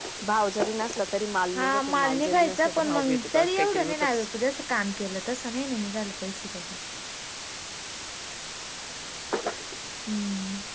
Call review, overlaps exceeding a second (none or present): present